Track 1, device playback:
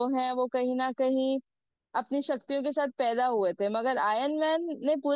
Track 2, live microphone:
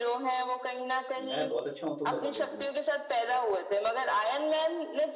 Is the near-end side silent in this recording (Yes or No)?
No